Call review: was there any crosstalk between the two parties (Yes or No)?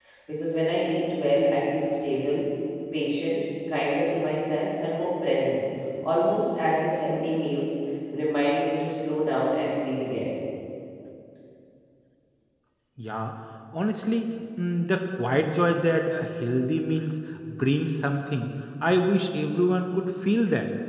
No